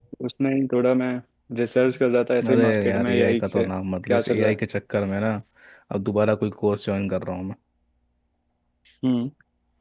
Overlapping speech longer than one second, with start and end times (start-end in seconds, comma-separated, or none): 2.4-3.6